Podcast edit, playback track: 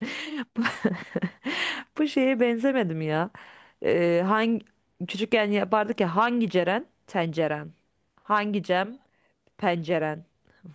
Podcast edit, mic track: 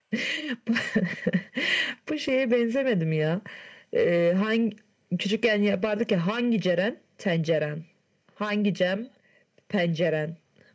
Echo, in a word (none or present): present